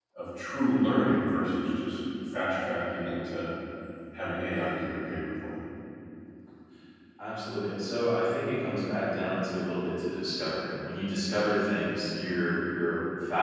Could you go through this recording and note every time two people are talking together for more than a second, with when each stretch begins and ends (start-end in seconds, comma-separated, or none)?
none